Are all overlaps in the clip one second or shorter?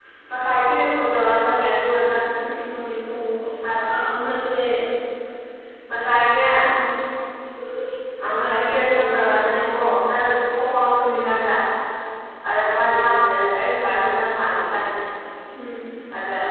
No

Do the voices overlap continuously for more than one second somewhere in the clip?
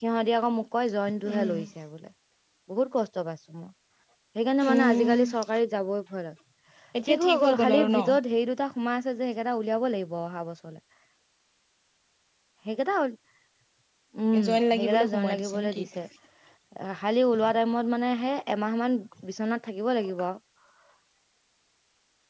Yes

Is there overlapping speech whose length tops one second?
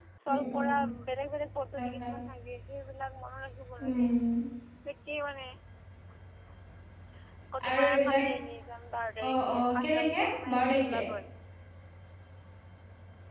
Yes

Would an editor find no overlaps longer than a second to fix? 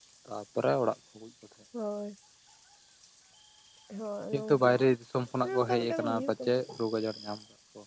No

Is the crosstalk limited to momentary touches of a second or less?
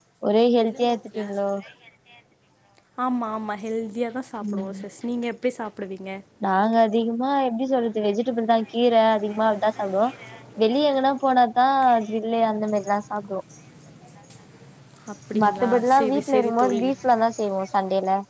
No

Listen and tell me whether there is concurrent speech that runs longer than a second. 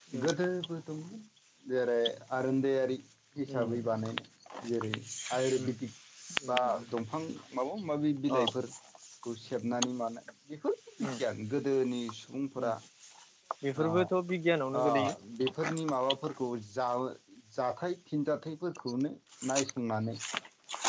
No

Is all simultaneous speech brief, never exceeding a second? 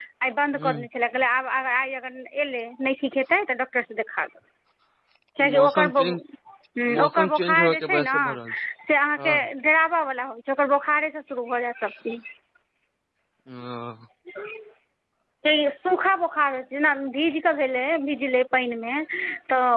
No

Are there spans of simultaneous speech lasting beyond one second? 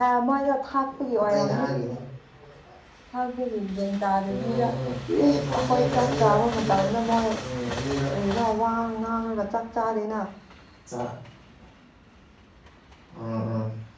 Yes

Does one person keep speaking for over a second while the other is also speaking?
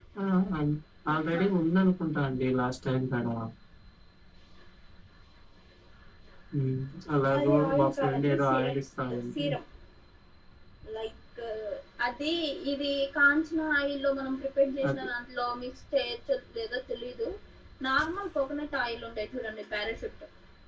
Yes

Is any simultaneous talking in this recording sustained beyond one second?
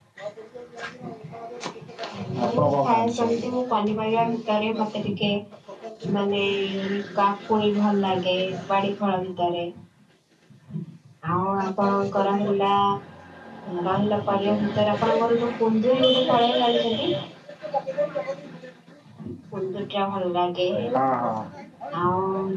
Yes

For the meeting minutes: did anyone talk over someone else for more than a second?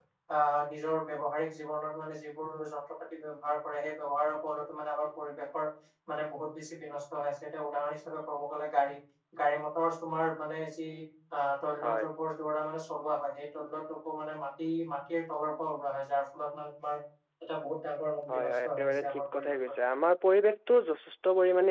Yes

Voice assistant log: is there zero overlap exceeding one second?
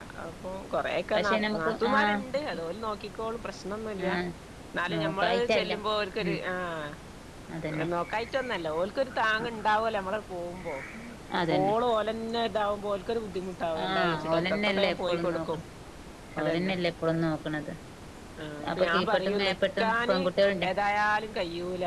No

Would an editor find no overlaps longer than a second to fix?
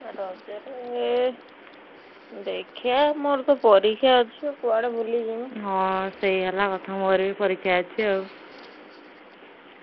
Yes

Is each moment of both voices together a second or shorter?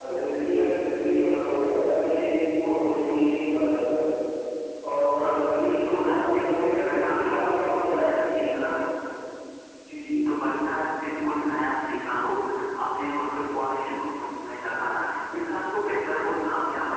No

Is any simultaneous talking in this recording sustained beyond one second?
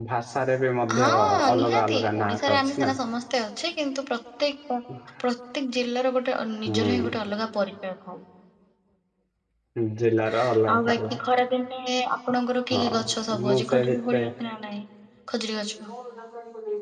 Yes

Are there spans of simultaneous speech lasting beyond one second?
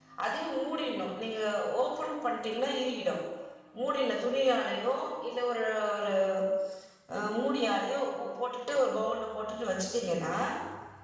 No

